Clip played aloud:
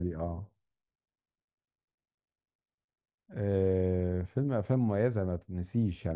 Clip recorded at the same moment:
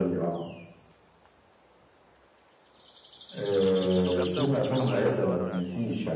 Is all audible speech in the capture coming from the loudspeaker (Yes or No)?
No